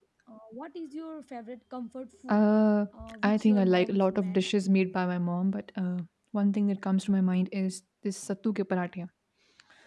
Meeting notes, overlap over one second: present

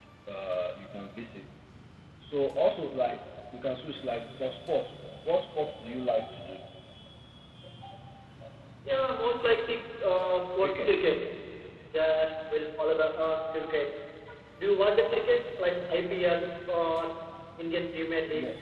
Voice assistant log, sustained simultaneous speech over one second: none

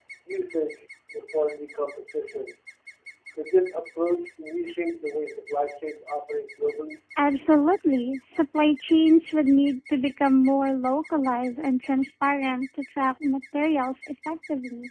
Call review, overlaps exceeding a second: none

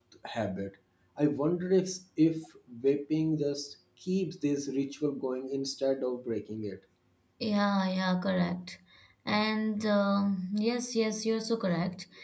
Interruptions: none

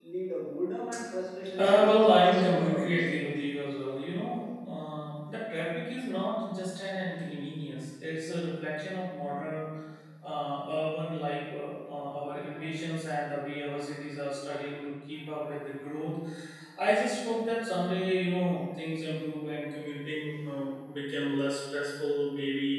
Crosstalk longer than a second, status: present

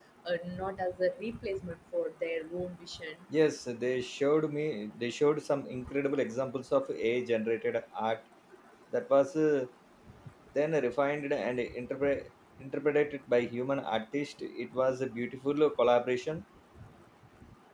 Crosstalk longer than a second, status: none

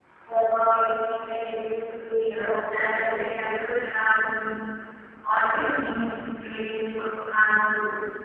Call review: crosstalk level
present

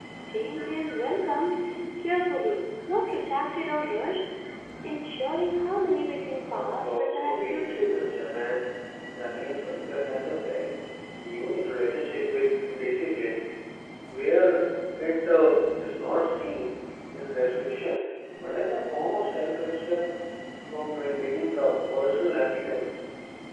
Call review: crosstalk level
present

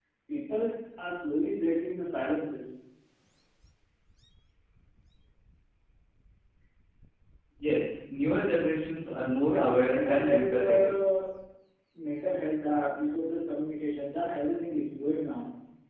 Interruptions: present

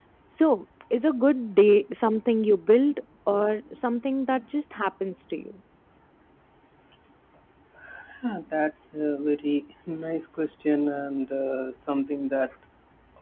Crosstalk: none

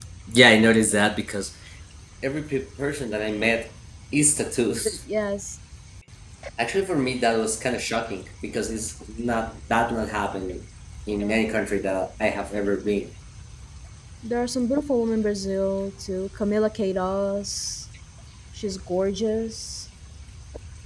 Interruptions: none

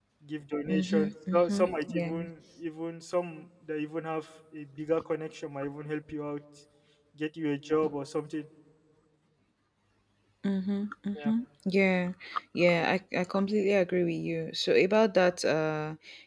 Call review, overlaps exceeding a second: present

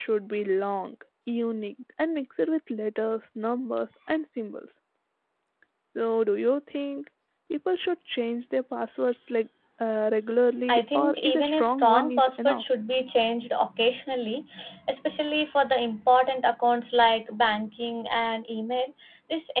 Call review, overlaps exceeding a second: present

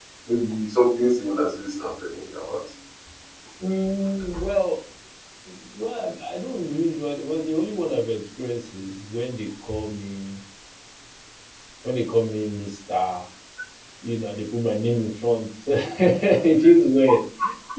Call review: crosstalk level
none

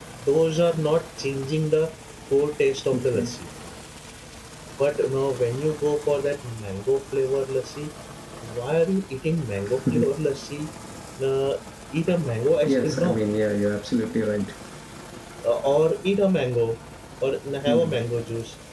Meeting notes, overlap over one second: none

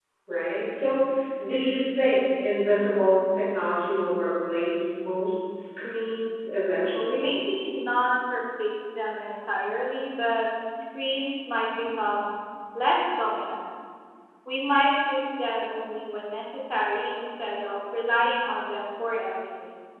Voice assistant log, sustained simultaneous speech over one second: none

